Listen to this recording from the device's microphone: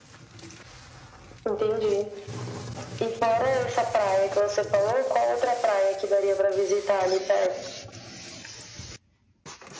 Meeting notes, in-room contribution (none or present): none